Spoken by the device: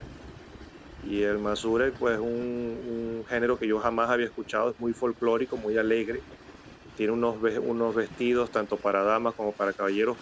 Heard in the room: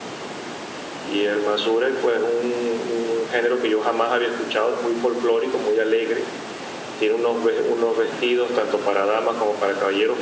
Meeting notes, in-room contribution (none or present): none